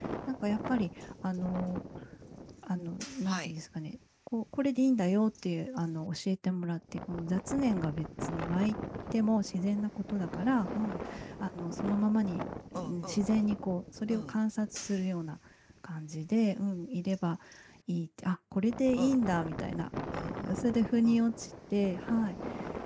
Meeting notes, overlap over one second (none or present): none